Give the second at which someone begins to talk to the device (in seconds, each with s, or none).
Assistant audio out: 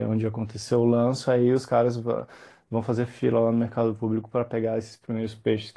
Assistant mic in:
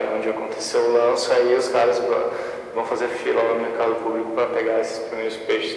none